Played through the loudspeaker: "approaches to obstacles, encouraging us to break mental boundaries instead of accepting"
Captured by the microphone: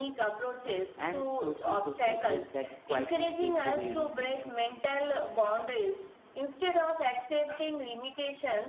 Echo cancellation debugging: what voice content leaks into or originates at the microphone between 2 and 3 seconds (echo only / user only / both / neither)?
both